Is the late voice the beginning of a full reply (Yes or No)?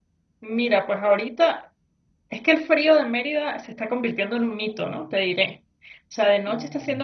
No